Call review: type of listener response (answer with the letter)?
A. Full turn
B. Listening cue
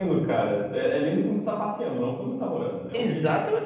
A